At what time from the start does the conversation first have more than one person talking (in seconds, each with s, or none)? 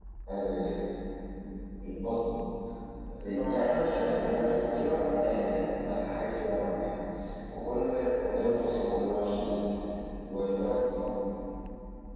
3.5 s